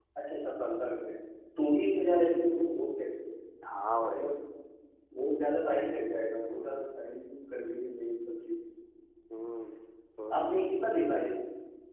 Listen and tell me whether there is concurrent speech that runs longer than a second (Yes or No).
No